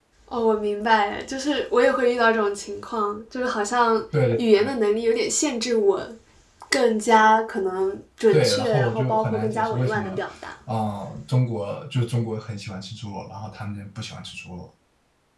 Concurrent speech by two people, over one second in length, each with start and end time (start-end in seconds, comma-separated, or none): 8.3-10.2